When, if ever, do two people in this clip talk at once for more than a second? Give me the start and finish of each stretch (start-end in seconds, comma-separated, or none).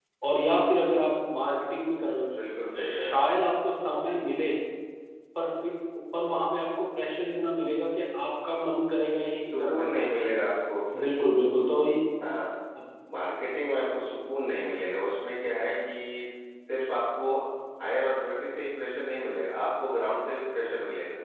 none